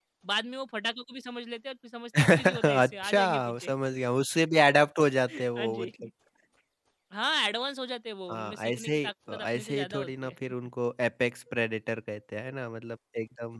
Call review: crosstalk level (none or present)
present